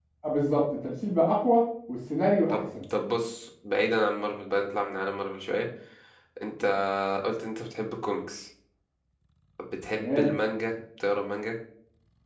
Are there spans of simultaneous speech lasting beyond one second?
No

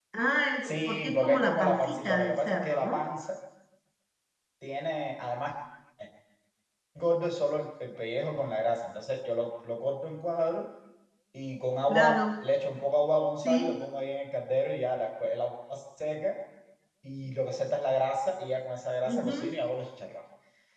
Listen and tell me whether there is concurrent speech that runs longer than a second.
Yes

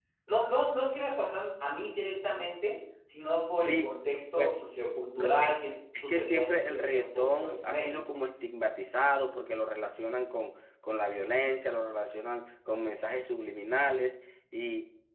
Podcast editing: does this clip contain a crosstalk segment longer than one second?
Yes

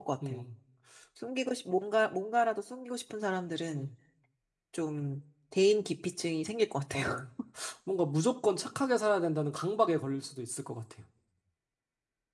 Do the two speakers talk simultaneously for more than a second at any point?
No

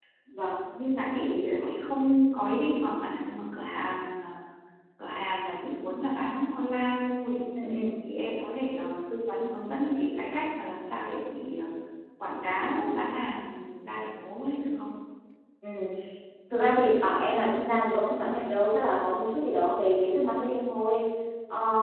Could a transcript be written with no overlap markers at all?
Yes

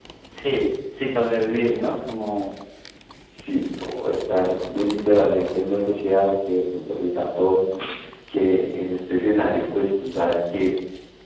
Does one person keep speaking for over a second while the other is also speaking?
No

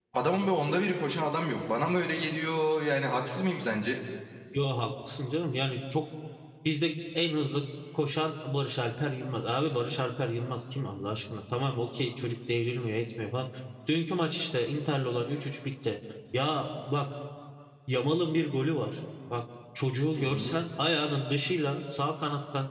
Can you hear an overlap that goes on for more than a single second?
No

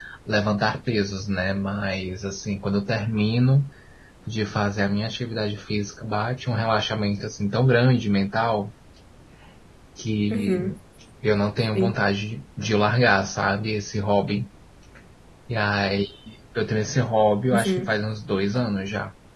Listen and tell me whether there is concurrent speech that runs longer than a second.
No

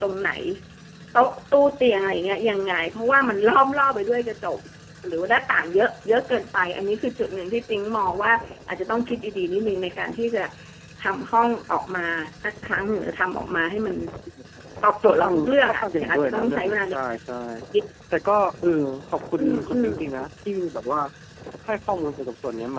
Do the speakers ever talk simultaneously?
Yes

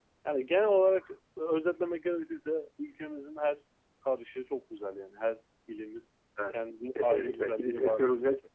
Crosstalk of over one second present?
Yes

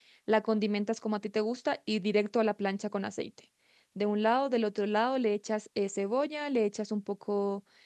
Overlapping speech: No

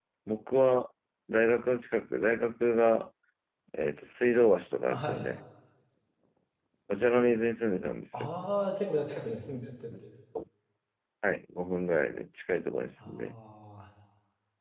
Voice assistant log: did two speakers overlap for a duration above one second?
No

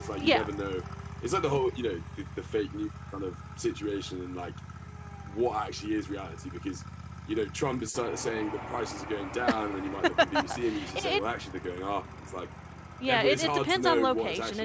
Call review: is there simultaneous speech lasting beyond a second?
Yes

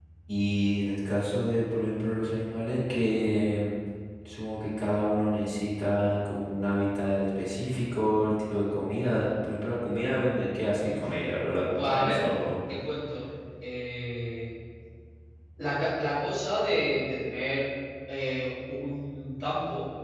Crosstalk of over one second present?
No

